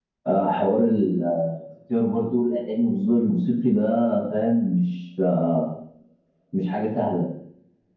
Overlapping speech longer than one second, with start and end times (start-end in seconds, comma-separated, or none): none